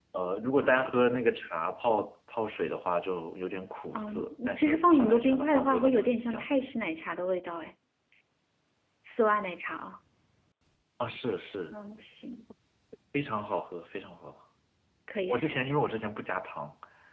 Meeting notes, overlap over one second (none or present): present